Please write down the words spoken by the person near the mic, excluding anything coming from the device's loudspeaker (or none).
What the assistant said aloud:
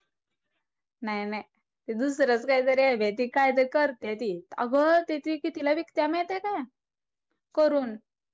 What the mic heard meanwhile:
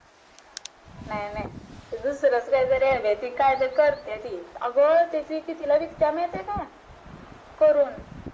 none